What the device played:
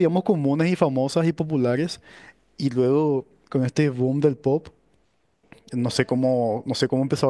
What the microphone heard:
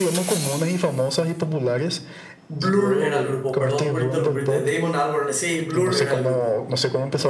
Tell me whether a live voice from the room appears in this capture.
Yes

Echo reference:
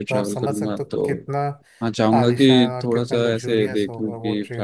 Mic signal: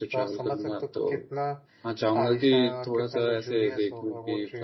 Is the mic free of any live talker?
Yes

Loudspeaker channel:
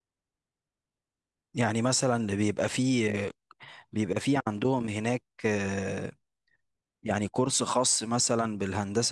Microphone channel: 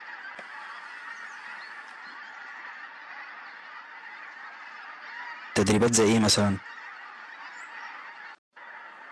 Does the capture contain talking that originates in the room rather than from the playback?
Yes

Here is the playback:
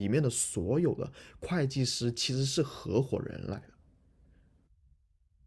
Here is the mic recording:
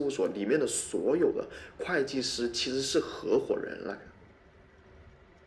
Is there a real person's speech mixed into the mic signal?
No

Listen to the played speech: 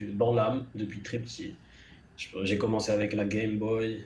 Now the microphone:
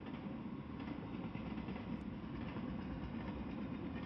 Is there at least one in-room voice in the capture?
No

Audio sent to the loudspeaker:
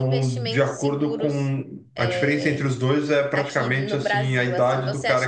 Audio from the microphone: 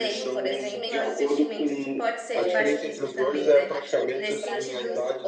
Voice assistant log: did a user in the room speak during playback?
Yes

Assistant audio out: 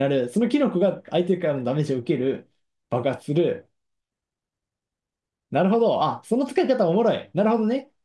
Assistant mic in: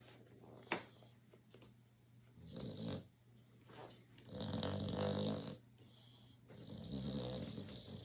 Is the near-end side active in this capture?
No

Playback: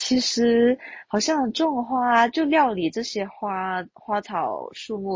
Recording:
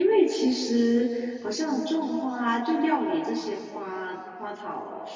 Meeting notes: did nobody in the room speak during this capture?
Yes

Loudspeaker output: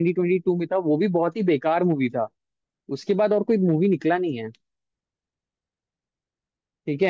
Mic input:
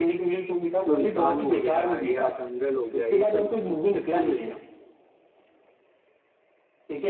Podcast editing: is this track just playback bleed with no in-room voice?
No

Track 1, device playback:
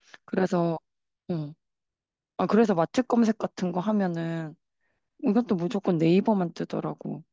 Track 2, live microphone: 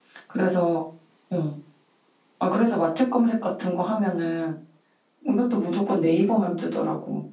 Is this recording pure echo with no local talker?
Yes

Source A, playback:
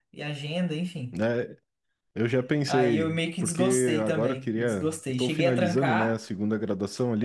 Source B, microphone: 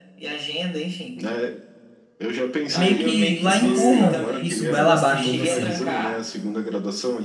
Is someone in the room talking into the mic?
Yes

